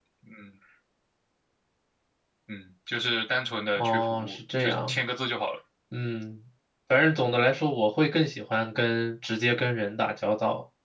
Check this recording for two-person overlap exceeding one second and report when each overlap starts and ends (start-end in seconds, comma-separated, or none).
3.8-5.0